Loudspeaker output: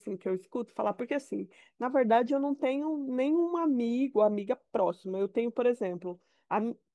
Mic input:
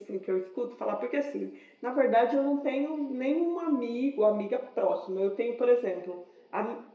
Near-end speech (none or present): none